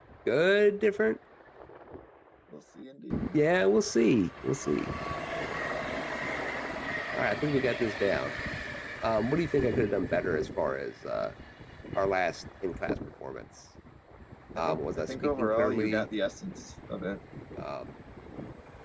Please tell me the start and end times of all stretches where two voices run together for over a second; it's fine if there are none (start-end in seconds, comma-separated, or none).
14.6-16.1